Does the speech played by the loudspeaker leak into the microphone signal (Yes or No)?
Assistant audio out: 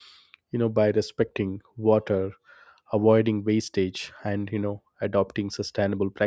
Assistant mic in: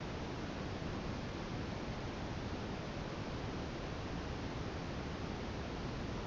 No